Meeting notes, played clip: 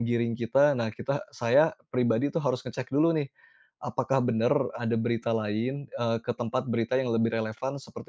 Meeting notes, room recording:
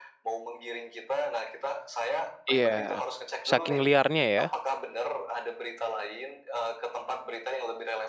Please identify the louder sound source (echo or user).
user